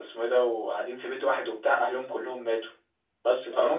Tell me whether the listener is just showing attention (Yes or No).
Yes